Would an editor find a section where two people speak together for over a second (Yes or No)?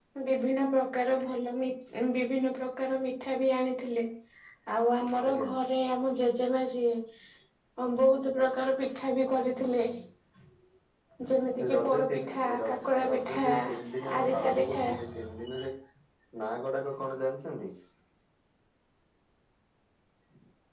Yes